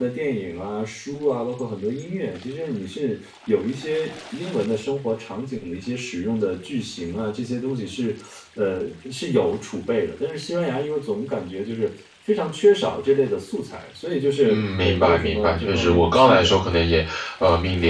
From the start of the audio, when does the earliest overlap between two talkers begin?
14.4 s

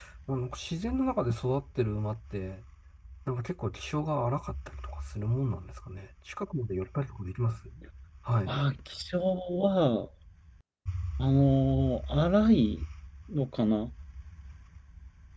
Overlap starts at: none

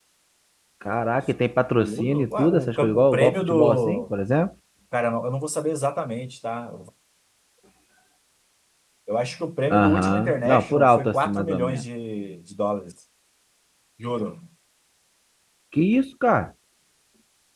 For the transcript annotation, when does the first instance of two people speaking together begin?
1.8 s

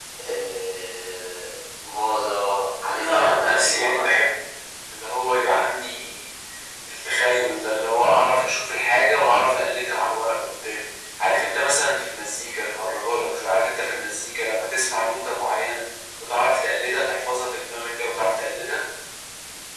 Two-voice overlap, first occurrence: 2.9 s

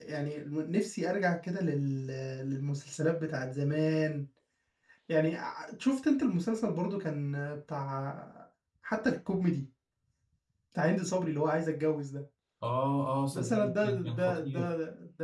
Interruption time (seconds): 13.3 s

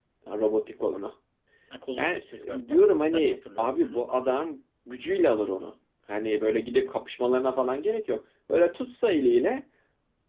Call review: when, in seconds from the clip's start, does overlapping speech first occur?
2.0 s

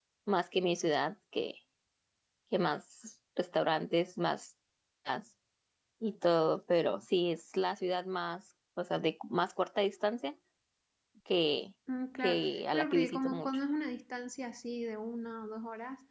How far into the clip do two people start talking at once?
12.2 s

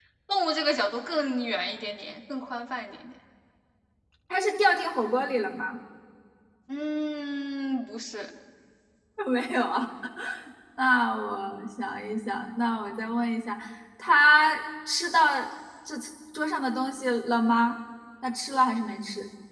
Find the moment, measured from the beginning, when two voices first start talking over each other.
none

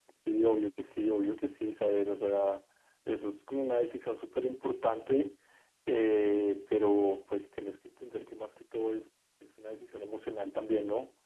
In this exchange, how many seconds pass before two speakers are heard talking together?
none

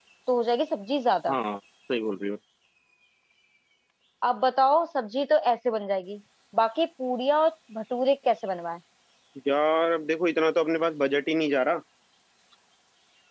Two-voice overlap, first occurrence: none

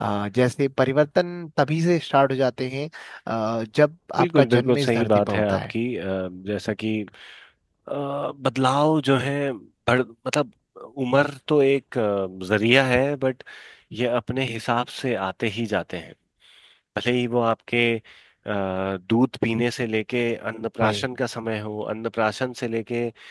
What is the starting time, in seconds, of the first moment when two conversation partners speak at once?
4.2 s

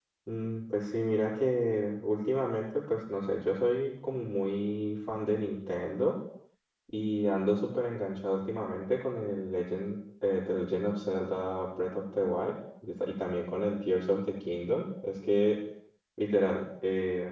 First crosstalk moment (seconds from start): none

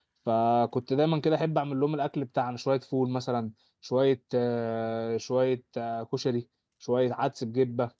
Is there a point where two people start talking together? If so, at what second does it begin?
none

